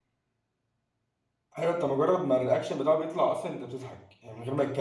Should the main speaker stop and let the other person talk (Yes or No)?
No